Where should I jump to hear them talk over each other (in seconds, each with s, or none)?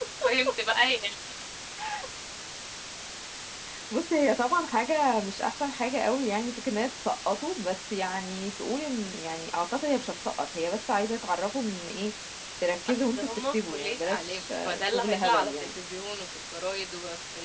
12.9 s